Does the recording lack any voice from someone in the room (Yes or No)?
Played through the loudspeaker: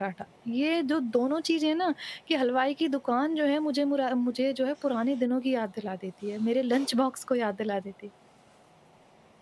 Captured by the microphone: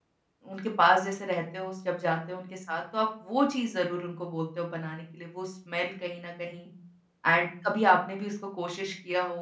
No